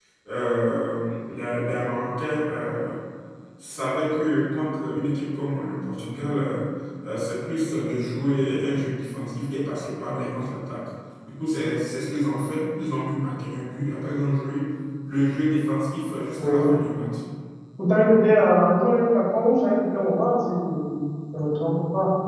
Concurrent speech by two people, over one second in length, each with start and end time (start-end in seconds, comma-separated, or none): none